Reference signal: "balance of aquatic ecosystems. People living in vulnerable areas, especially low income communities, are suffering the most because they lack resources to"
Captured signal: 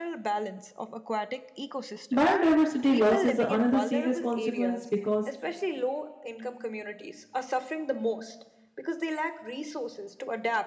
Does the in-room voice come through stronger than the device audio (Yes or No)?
Yes